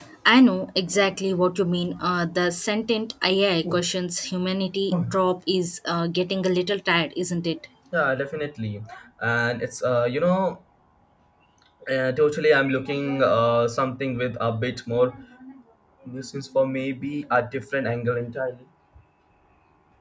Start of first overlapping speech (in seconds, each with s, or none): none